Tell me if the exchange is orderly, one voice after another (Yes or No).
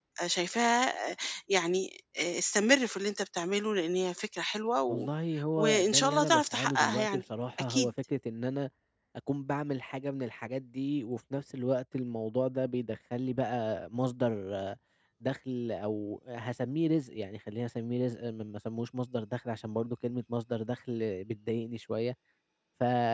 No